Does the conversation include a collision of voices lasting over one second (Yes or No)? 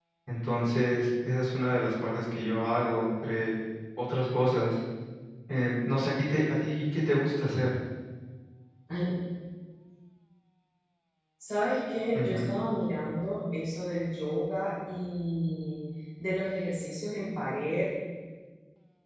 No